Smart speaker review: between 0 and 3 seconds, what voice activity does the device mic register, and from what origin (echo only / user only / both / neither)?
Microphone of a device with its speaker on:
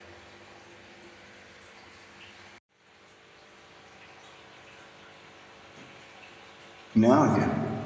neither